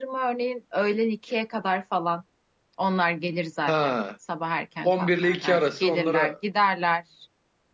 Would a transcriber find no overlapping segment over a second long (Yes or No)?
No